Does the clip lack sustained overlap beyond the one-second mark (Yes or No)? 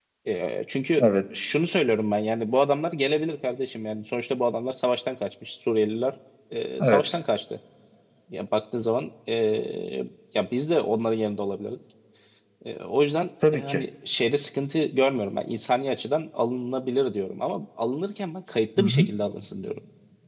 Yes